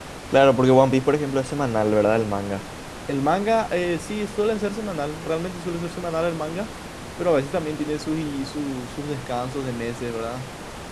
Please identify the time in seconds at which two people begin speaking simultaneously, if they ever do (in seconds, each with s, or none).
none